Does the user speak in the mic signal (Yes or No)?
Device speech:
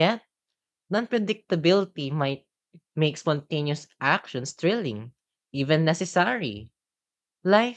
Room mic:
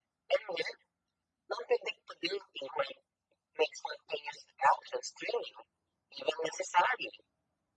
No